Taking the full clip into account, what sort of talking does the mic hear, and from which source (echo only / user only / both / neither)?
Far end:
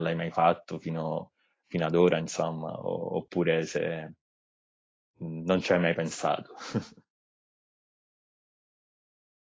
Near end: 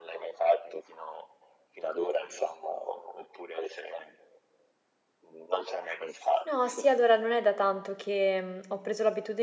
both